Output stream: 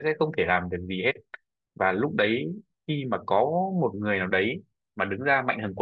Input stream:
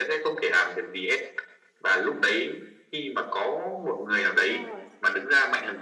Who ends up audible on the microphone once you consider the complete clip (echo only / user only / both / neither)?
both